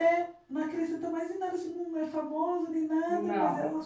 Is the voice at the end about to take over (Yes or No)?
No